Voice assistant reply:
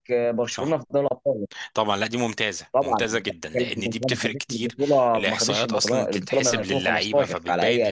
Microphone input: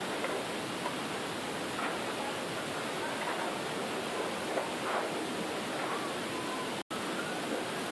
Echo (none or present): none